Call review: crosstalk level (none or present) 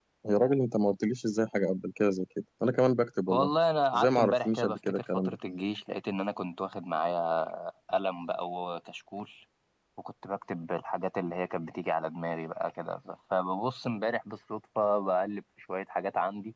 present